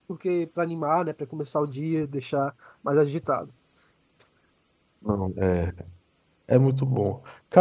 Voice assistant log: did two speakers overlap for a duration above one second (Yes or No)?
No